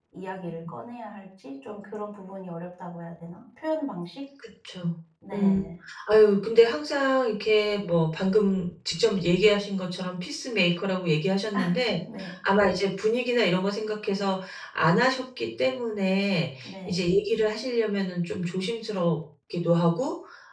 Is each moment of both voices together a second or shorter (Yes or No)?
Yes